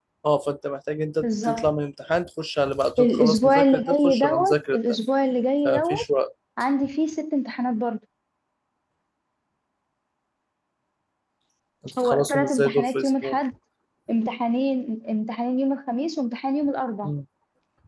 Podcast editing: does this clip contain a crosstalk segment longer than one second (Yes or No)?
Yes